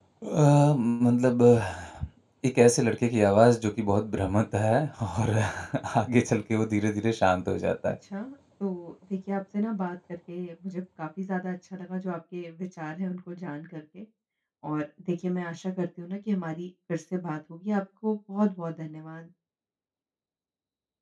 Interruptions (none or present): none